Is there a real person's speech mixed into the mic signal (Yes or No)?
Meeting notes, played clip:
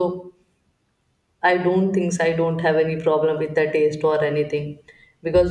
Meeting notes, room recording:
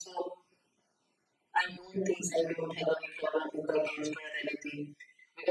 No